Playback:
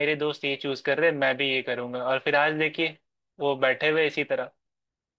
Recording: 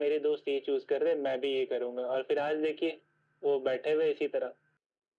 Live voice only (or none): none